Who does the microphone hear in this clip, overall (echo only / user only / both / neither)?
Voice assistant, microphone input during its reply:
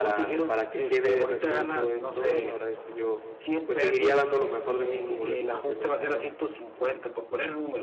both